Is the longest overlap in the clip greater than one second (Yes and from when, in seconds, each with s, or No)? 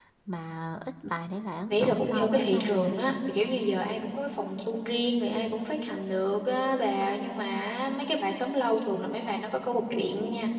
Yes, from 1.7 s